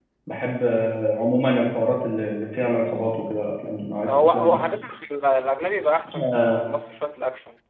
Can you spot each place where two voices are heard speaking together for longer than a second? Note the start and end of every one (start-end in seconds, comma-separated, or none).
none